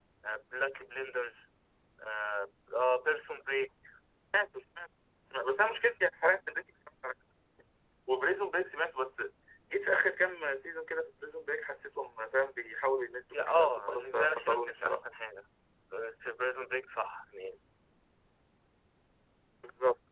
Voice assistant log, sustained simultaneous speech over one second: present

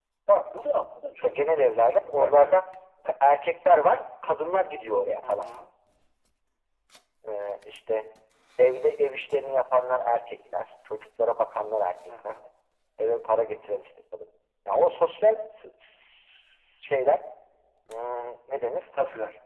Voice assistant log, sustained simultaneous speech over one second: present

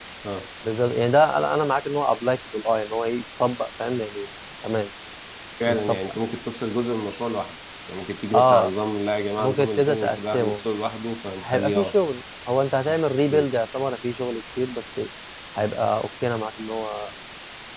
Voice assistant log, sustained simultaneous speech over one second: present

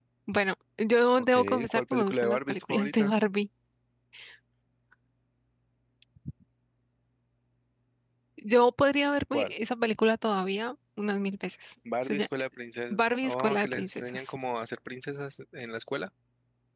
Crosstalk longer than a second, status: present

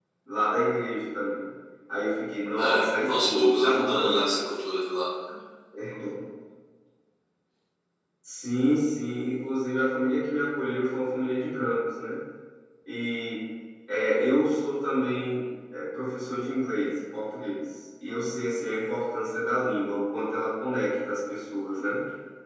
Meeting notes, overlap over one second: present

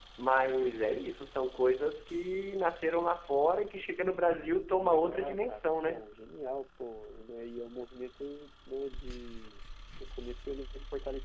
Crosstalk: present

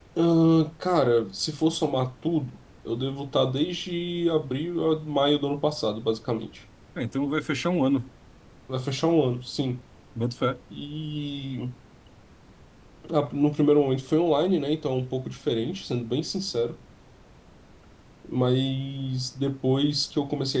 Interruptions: none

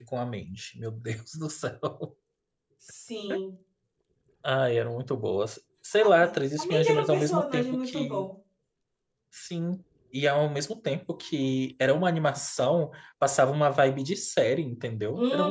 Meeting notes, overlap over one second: present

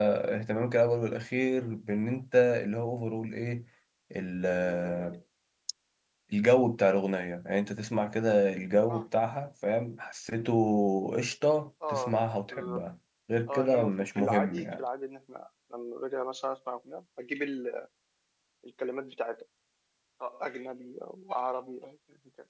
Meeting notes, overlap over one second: present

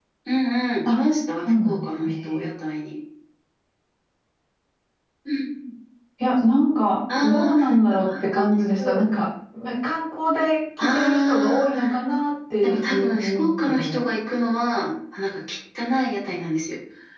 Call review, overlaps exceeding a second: present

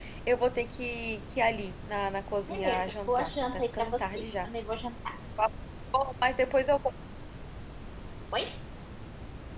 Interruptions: present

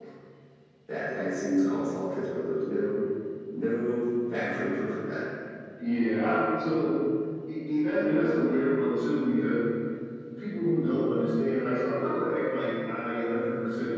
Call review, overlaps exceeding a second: none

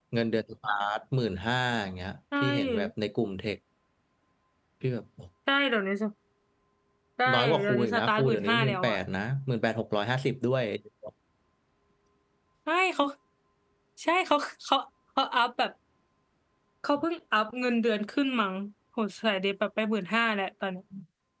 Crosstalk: present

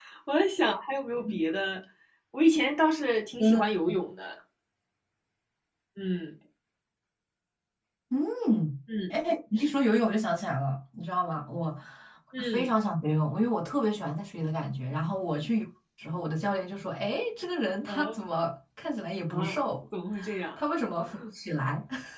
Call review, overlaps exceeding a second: none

